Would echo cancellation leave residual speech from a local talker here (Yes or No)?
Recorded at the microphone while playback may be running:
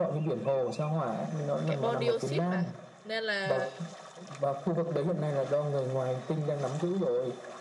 Yes